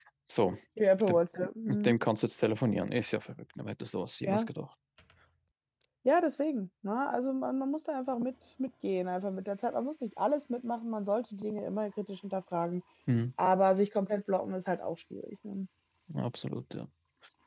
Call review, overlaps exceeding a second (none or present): none